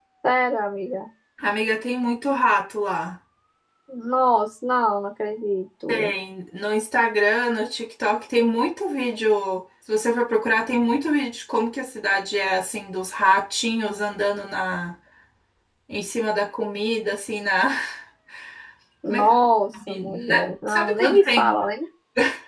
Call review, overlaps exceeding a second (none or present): present